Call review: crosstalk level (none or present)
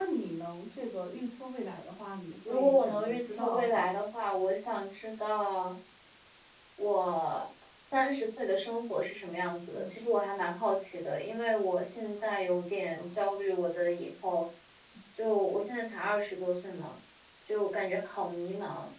present